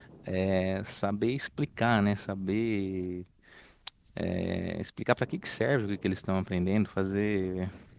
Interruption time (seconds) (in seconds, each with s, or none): none